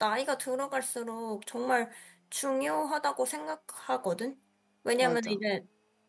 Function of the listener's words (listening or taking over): listening